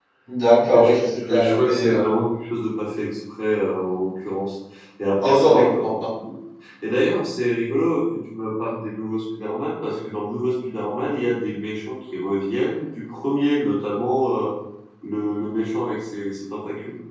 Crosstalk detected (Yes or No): Yes